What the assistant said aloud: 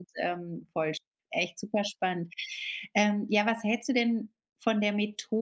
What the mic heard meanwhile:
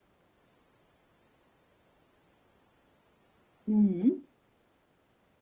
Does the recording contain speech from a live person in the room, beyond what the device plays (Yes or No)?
Yes